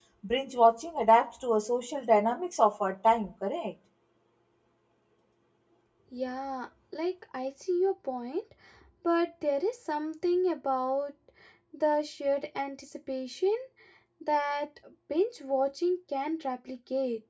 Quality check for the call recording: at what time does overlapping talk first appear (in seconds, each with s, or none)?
none